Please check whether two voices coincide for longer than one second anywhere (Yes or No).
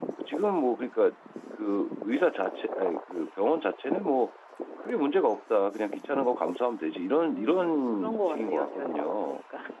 Yes